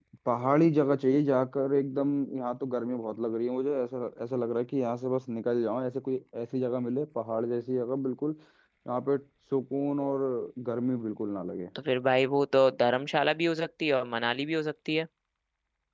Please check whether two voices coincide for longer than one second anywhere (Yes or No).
No